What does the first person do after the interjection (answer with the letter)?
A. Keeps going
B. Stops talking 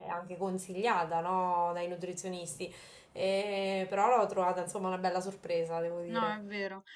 B